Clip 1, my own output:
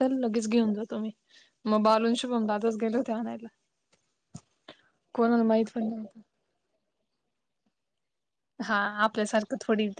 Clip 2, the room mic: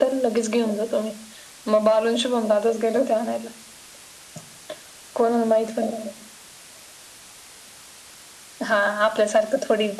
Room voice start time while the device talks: none

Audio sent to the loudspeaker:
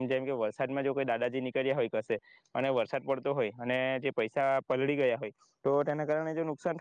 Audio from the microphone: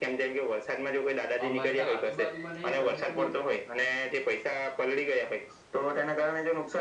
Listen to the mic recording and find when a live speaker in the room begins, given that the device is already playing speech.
1 s

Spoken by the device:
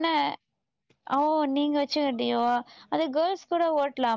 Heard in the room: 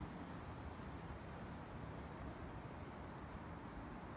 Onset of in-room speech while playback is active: none

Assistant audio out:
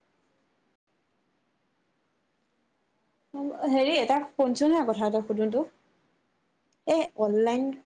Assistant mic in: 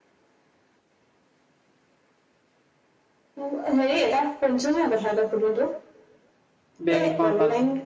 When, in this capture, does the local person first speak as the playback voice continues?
7 s

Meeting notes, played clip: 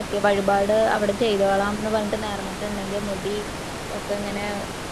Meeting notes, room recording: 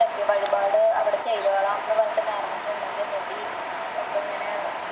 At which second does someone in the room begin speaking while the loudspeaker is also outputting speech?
none

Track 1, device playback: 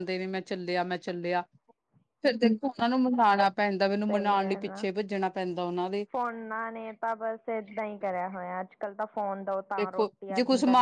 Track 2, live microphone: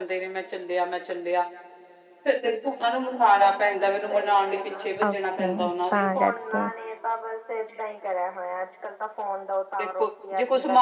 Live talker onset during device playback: 5 s

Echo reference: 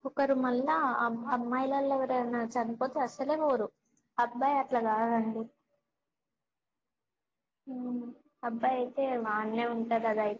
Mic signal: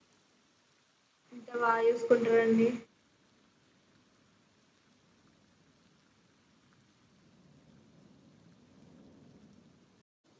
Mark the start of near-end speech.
1 s

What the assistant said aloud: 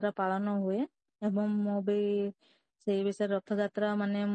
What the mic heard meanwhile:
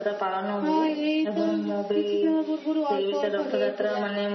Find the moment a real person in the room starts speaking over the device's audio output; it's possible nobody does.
1 s

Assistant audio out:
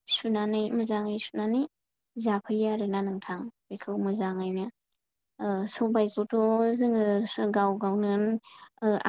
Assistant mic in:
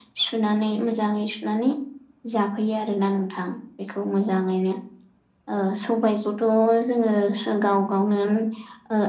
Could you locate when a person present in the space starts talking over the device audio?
none

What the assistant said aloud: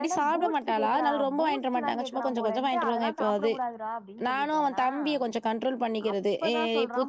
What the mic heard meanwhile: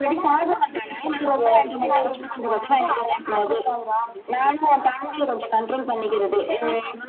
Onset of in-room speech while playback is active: 1 s

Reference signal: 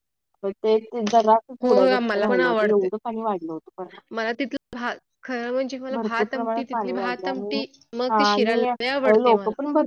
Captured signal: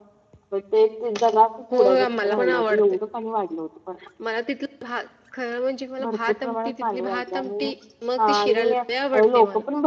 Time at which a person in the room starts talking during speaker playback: none

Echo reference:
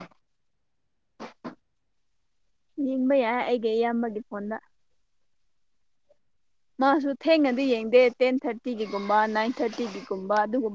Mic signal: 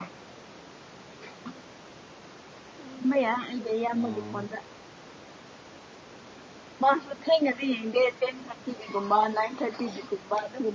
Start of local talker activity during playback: 4 s

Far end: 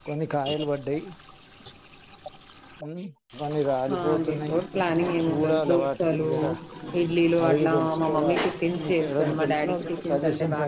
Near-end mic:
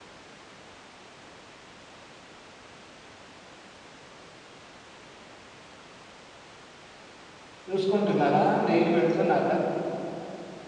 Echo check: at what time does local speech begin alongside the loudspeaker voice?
8 s

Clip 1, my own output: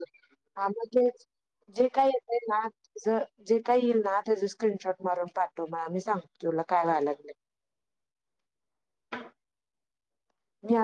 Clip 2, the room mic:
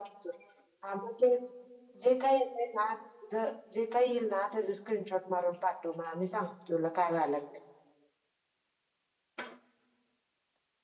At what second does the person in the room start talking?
none

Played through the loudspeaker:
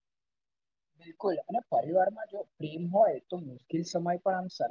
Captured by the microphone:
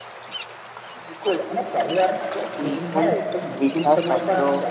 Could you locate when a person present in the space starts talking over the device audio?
3 s

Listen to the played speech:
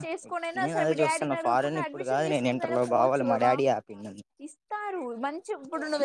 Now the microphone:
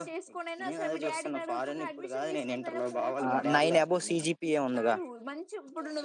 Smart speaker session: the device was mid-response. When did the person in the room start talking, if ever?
3 s

